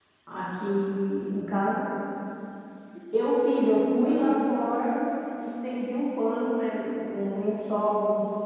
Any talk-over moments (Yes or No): No